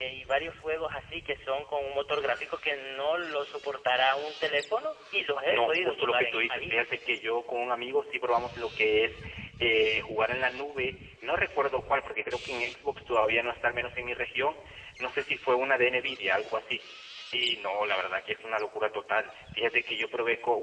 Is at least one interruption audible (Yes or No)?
Yes